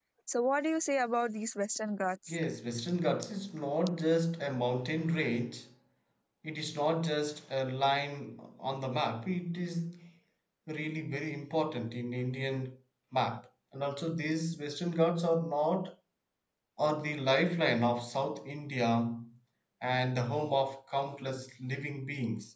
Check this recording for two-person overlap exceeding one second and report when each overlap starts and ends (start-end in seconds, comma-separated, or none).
none